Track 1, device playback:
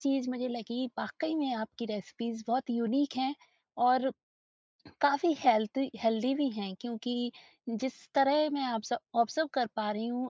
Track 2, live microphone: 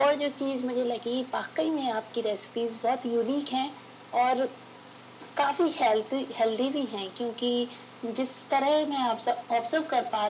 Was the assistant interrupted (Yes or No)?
No